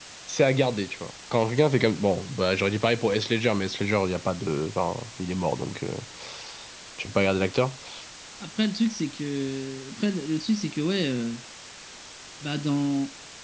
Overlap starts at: none

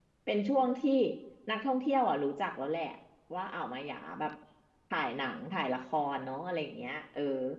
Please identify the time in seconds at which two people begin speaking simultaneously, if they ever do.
none

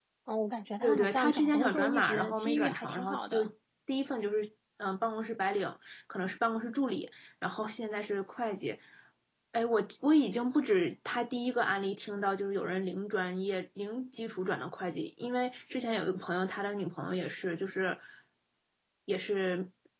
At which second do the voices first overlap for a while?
0.8 s

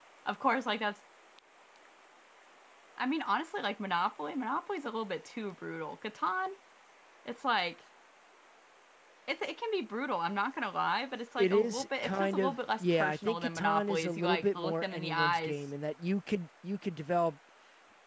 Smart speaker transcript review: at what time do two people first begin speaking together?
11.4 s

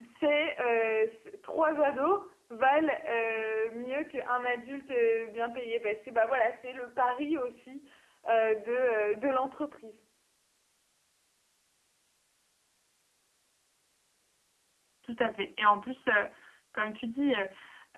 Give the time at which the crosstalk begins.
none

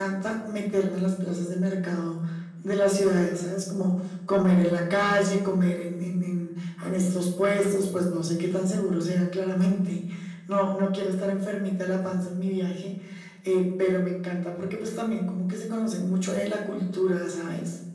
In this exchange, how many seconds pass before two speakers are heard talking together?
none

